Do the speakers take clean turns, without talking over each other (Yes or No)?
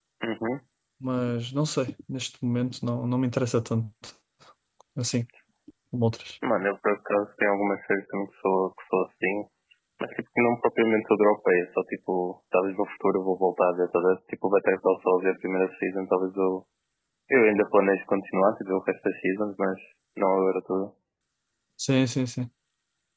Yes